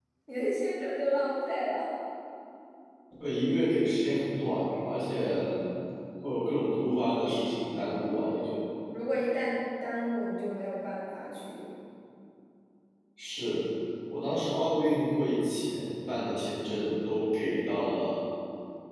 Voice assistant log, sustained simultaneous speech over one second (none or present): none